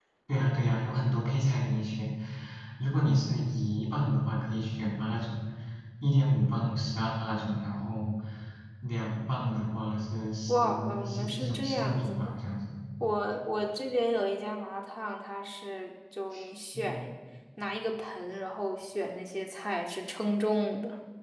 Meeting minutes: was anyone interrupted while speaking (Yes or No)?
Yes